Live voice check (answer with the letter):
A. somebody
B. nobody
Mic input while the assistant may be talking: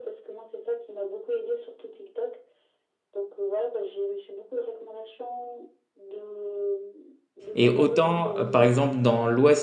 A